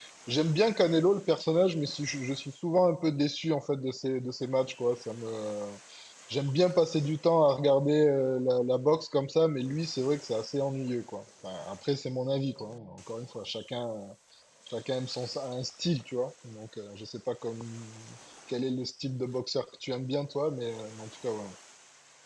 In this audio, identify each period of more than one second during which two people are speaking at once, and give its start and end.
none

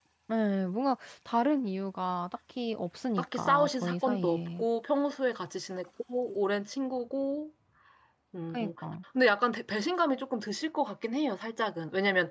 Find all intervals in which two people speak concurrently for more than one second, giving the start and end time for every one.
3.2-4.7

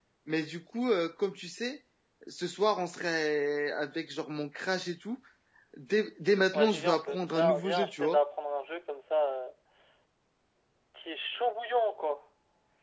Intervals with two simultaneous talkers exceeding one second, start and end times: 6.5-8.2

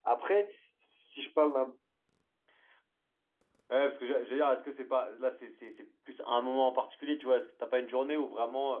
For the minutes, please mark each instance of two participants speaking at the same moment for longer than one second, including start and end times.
none

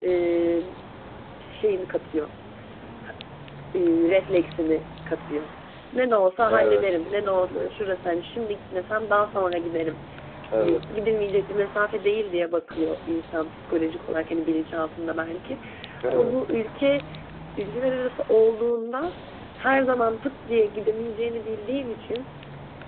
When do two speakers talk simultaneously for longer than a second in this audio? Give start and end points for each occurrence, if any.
6.5-7.7

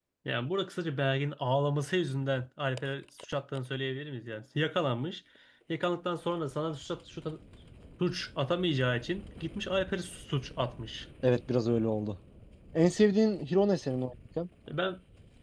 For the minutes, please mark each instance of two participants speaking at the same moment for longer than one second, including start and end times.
none

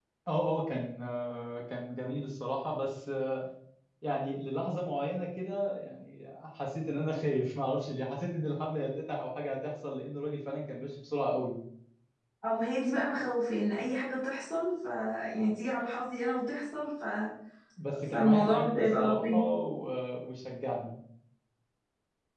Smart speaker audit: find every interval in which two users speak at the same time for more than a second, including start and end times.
18.1-19.4

